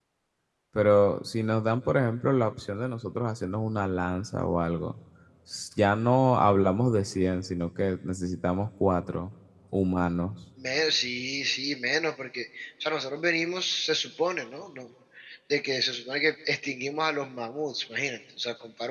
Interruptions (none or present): none